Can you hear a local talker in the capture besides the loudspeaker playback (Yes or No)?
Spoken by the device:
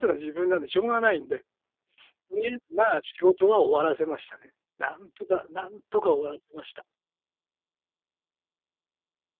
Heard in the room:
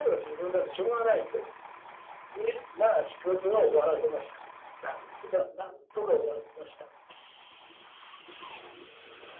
No